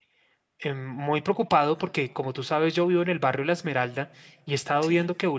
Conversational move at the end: listening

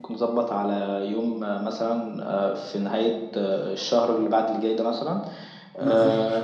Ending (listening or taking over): listening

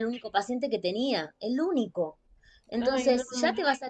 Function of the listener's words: listening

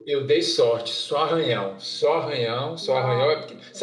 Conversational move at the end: listening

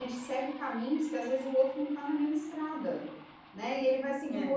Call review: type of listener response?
listening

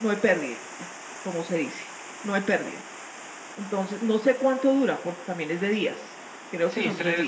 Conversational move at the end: taking over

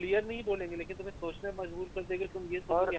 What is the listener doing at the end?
taking over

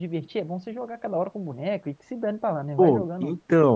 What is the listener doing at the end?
taking over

